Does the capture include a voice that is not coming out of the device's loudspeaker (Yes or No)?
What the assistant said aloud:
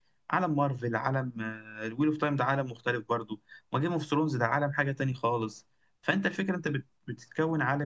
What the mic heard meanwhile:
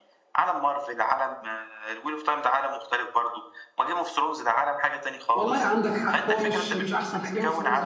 Yes